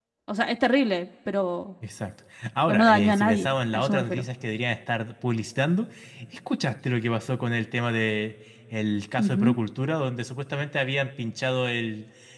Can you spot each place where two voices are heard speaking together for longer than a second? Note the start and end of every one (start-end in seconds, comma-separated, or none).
2.7-4.3